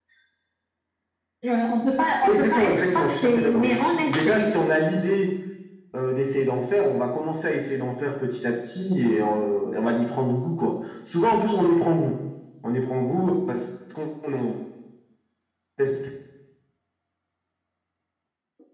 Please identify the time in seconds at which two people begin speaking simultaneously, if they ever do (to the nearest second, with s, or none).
2 s